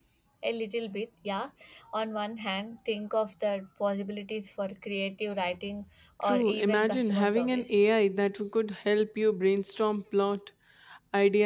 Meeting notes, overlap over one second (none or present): present